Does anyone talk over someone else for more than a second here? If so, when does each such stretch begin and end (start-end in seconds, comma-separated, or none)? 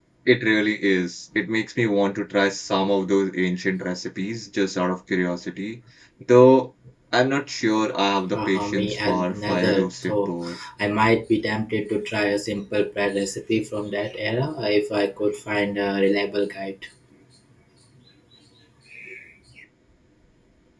8.3-10.3